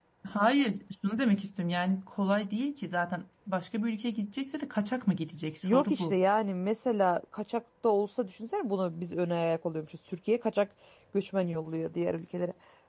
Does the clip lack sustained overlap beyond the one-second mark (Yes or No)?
Yes